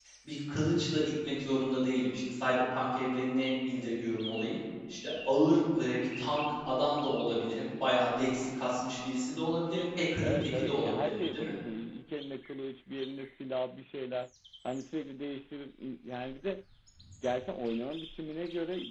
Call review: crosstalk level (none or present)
present